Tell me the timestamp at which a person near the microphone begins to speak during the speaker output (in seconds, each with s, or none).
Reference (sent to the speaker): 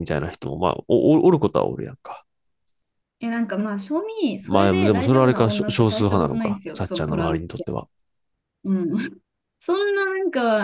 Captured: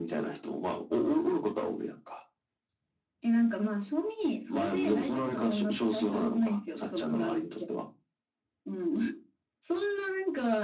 none